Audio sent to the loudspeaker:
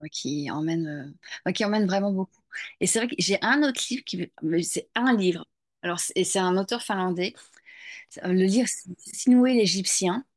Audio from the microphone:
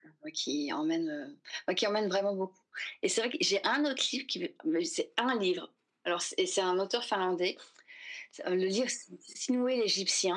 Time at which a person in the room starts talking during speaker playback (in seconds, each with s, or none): none